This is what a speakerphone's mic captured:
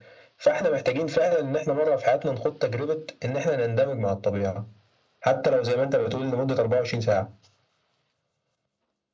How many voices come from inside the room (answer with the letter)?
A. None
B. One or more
A